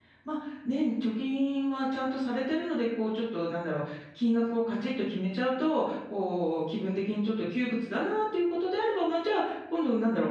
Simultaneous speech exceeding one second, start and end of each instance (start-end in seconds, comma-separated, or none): none